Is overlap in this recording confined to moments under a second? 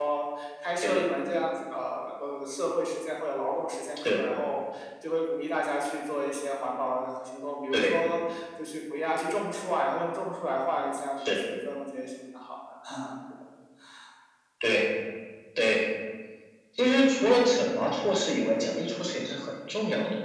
Yes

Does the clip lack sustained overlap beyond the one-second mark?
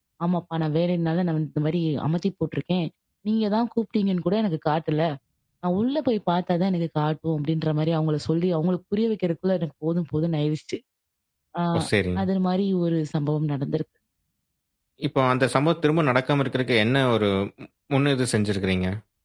Yes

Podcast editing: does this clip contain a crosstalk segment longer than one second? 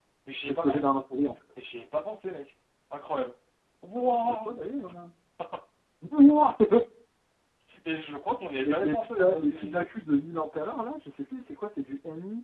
Yes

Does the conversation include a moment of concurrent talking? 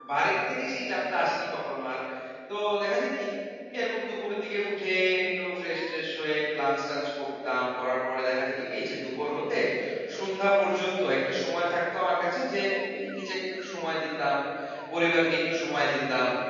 No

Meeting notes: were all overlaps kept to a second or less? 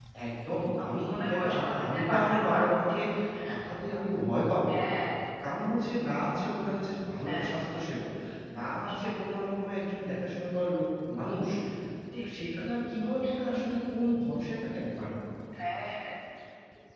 No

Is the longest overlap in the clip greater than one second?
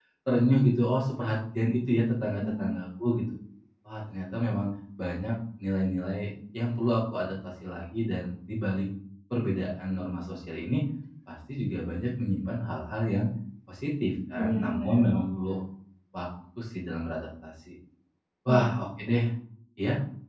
Yes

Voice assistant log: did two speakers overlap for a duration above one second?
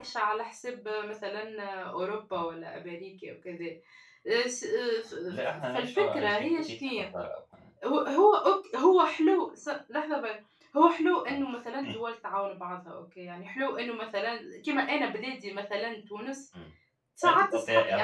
Yes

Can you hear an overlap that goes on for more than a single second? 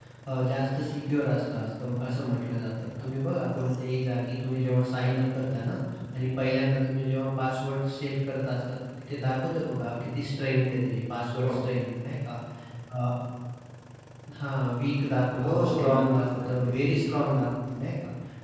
Yes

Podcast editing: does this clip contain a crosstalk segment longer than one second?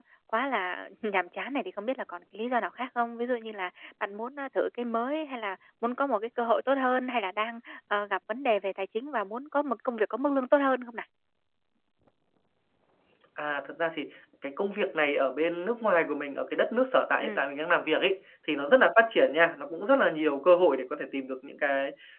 No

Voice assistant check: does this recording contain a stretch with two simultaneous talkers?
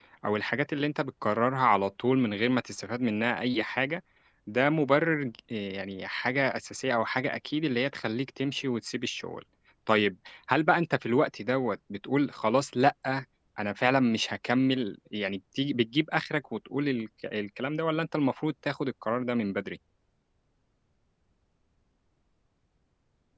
No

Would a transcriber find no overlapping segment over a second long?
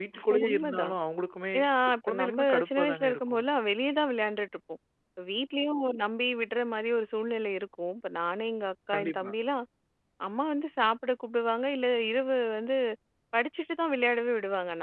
No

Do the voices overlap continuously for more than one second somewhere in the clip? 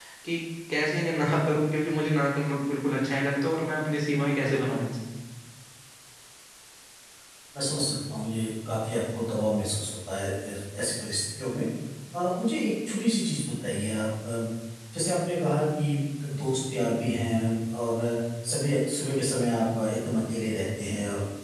No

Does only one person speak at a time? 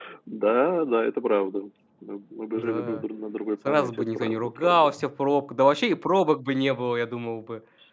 No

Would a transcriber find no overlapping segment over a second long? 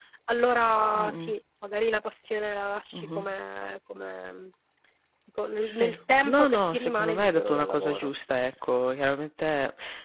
No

